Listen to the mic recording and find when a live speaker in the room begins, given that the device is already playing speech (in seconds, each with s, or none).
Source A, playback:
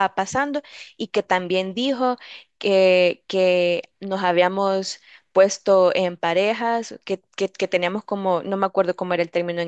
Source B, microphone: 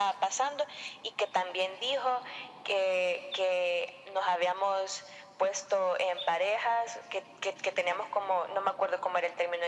none